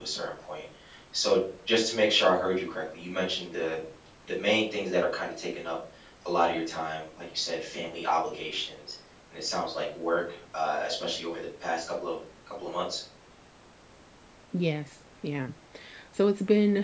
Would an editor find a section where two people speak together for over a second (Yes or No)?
No